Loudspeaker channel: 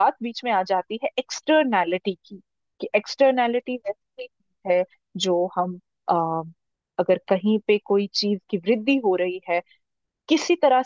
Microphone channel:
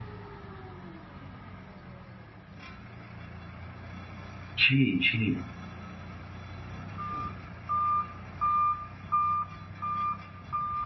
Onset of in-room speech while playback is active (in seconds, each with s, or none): 4.6 s